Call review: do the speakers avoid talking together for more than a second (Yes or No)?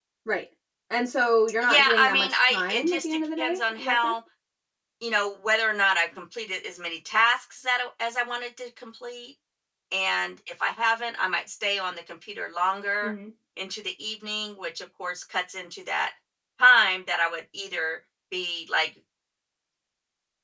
No